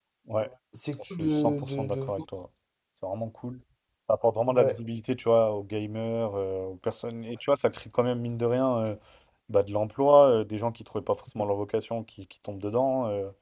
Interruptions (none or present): present